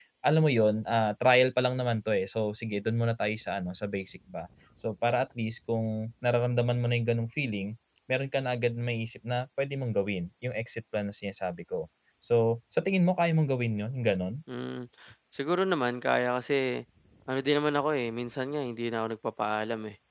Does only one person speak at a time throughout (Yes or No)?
Yes